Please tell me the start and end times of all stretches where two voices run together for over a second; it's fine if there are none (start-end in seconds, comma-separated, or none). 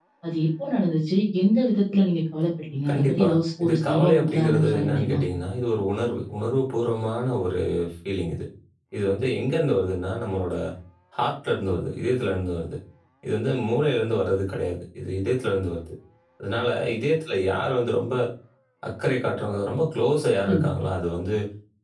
3.6-5.2